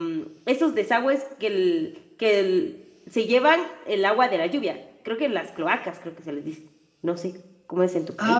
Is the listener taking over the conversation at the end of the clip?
Yes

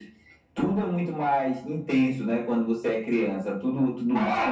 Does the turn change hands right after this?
Yes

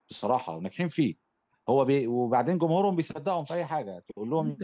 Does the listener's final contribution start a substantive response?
Yes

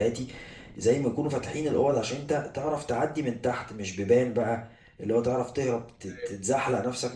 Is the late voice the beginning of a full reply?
No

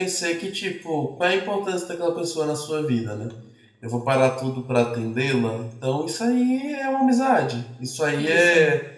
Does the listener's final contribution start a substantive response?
No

